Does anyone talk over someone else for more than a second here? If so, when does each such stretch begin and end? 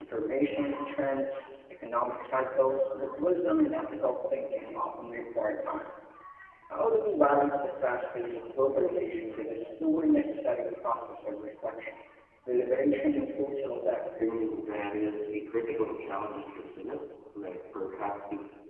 none

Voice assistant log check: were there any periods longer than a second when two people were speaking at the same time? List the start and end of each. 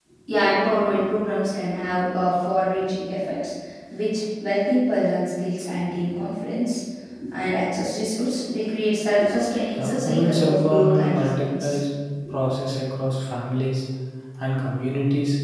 9.8-11.8

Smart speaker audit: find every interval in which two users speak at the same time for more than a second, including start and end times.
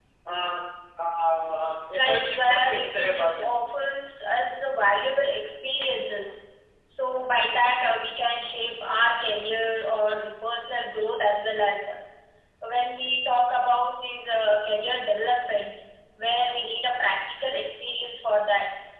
2.0-3.5

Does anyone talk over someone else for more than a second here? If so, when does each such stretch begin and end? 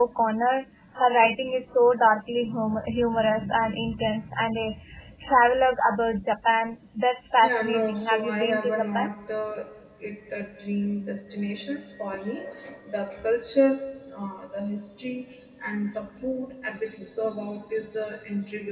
7.4-9.1

